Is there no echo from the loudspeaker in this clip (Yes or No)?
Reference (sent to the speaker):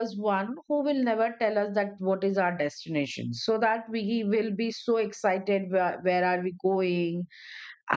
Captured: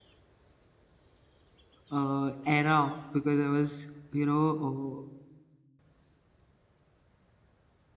Yes